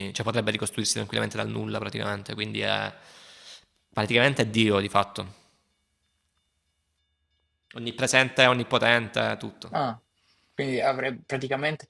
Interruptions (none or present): none